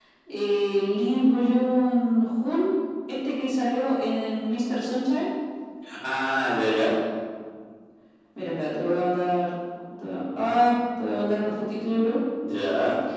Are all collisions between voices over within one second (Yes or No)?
Yes